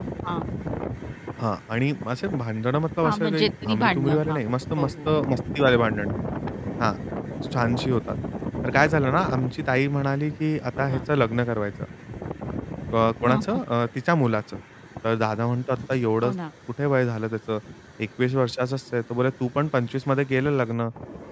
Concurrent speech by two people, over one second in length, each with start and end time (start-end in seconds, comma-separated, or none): 3.0-4.4